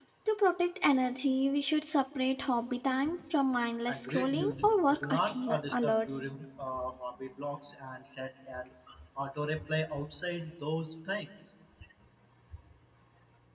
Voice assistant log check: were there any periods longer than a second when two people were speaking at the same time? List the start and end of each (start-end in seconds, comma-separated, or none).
3.9-6.2